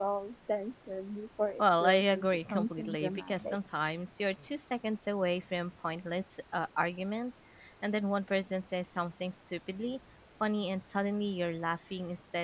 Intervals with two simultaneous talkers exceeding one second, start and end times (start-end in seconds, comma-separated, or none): 1.6-3.6